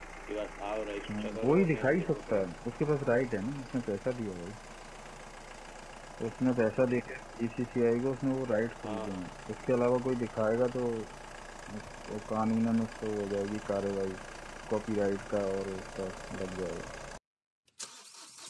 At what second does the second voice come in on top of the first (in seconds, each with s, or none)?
1.1 s